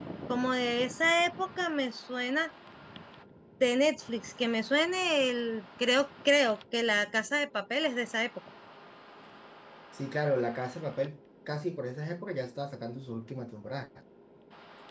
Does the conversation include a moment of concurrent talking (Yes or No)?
No